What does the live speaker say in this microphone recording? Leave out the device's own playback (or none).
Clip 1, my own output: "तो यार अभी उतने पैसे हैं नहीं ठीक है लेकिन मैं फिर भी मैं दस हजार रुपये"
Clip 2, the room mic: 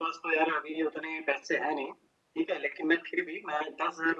none